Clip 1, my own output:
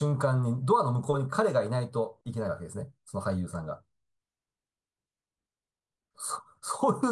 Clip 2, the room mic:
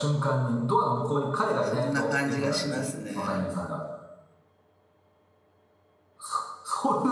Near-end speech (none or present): present